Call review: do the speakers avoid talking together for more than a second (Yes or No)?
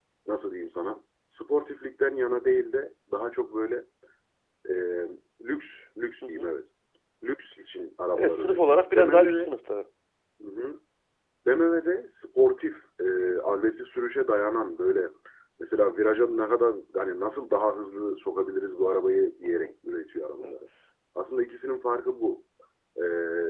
No